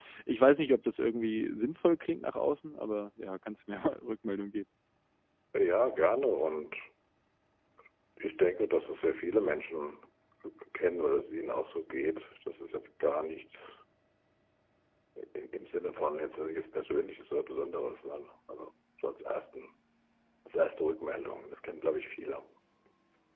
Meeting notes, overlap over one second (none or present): none